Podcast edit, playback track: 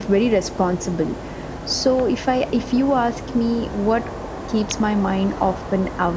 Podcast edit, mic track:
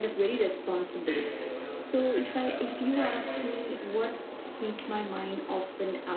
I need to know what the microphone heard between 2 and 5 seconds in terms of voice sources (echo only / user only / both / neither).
both